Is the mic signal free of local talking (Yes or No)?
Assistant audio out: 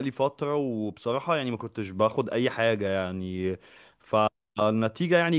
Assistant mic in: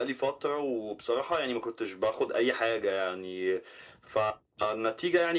Yes